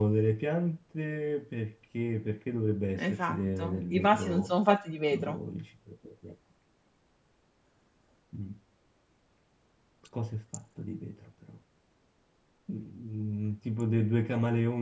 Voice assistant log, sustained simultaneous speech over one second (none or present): present